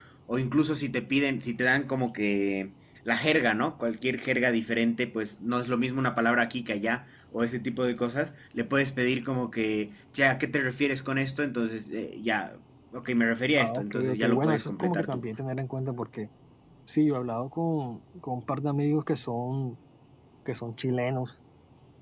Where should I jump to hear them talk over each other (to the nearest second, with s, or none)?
14 s